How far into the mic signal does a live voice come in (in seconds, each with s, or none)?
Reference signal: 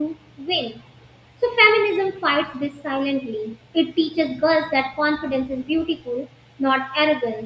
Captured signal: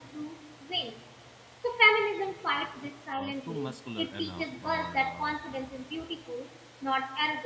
3.1 s